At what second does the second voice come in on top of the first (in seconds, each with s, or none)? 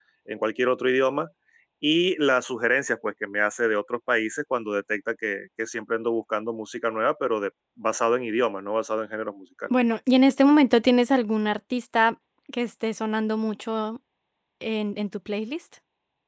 none